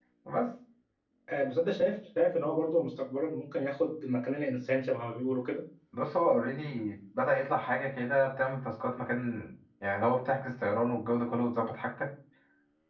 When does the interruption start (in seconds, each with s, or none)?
none